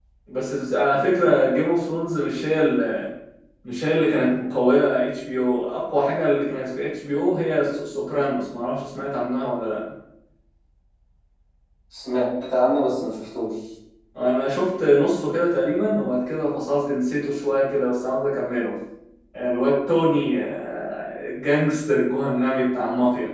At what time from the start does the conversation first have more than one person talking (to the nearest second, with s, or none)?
none